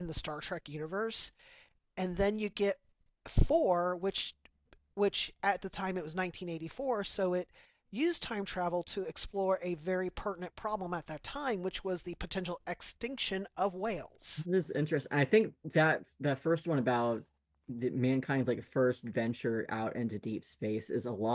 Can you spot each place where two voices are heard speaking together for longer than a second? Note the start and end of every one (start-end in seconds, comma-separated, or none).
none